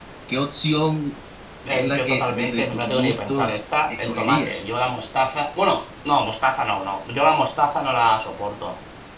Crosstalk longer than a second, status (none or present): present